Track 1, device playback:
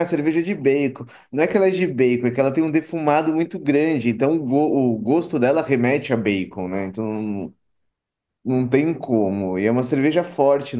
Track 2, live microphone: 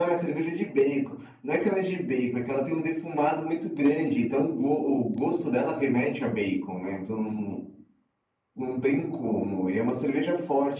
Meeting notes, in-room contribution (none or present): none